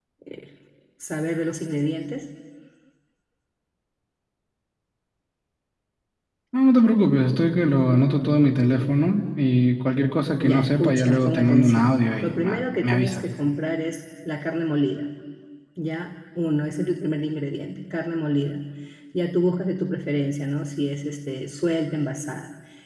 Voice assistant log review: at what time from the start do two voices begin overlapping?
10.4 s

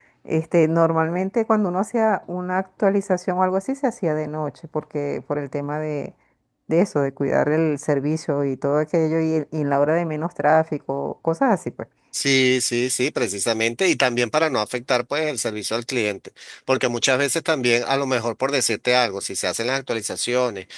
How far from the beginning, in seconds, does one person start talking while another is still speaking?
none

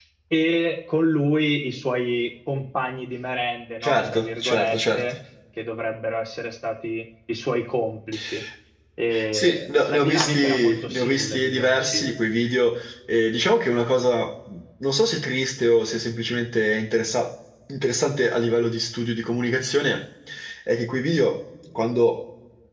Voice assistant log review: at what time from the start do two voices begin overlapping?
3.8 s

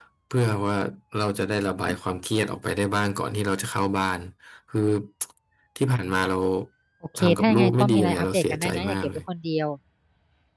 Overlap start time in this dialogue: 7.2 s

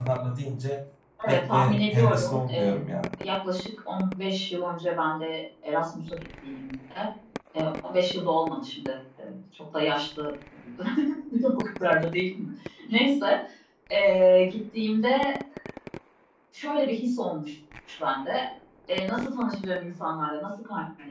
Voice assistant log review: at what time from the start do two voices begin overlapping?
1.3 s

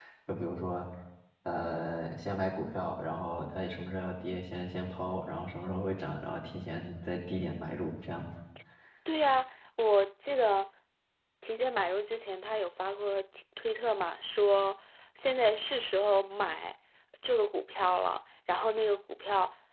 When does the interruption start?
none

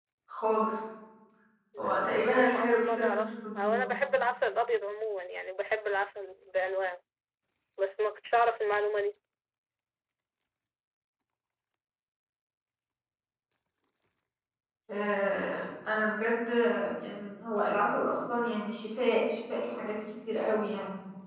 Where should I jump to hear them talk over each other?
1.8 s

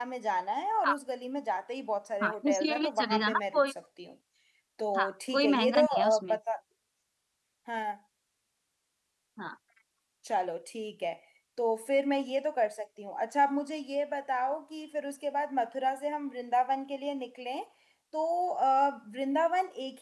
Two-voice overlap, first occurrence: 2.2 s

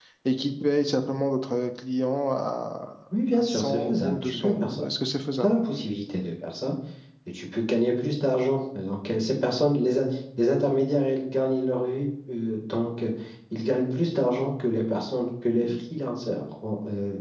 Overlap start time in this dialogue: 3.1 s

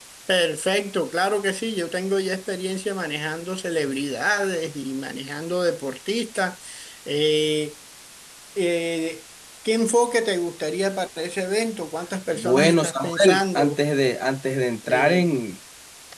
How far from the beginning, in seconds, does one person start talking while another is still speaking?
12.4 s

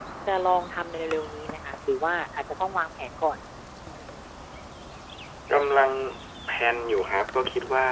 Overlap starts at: none

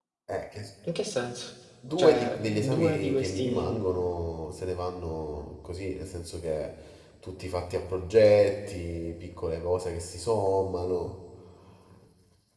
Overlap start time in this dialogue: 2.0 s

